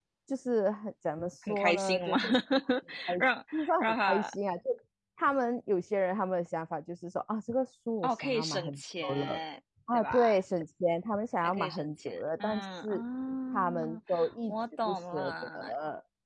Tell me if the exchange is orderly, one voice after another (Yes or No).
No